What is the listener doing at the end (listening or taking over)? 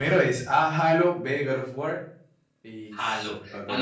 taking over